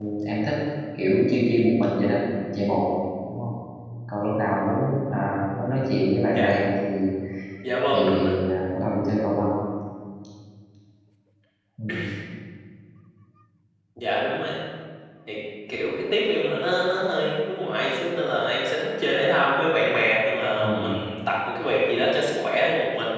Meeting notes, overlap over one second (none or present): none